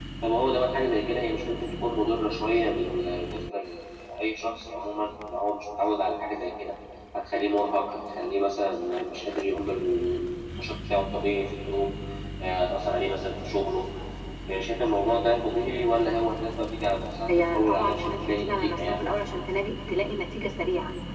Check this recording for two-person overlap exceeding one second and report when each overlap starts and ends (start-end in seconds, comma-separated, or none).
17.3-19.0